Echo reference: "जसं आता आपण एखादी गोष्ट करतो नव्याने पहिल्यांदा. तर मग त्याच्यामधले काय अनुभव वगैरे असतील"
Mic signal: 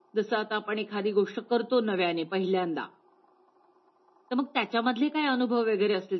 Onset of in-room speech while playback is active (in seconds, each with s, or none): none